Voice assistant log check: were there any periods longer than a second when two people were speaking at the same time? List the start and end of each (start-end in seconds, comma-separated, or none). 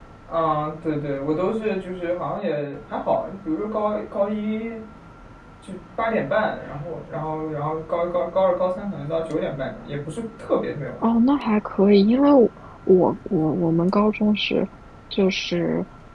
none